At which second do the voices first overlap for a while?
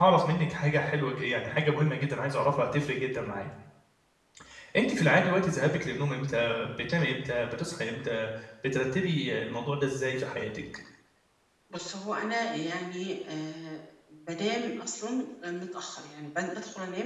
none

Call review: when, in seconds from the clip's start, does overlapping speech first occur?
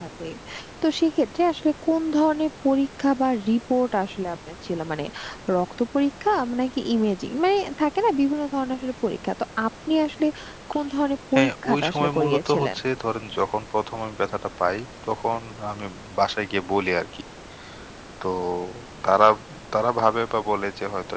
11.3 s

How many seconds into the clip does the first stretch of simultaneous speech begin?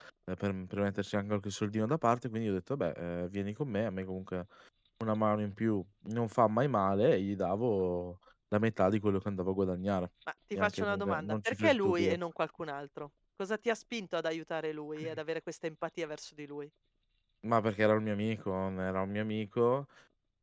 10.6 s

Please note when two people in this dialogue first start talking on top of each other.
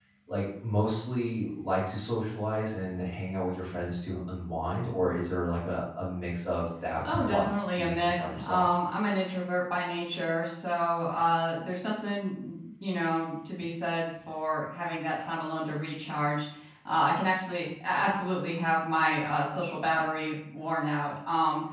7.0 s

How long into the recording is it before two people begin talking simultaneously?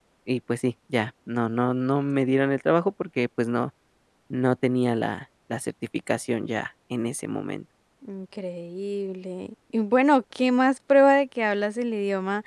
none

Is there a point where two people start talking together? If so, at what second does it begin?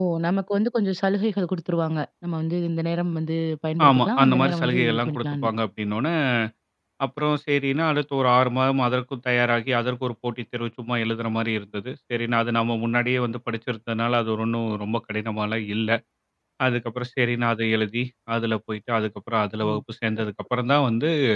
3.8 s

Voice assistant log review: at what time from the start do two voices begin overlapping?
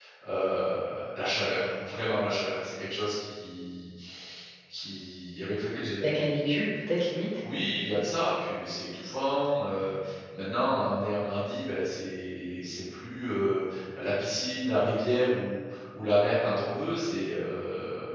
none

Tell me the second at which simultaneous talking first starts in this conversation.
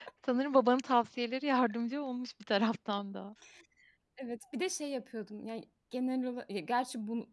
none

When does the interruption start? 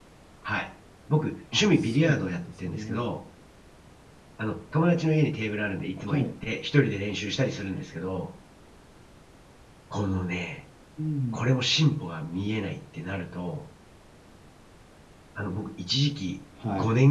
1.5 s

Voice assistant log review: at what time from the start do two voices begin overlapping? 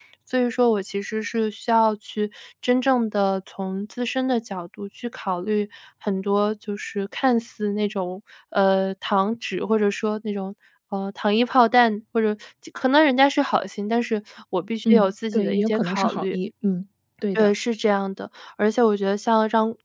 14.8 s

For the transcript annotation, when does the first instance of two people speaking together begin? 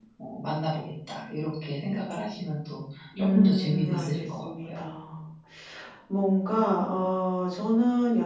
3.1 s

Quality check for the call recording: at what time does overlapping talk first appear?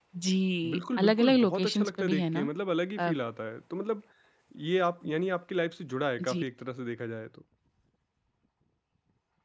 0.7 s

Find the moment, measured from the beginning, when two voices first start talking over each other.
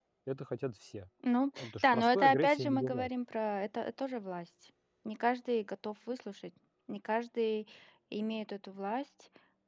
1.6 s

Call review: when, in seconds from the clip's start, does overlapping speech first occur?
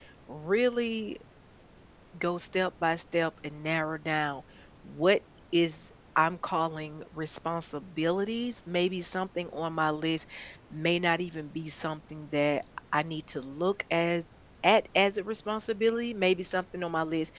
none

